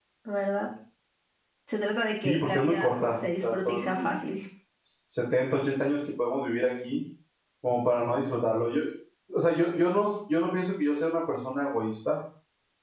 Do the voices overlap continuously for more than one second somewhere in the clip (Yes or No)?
Yes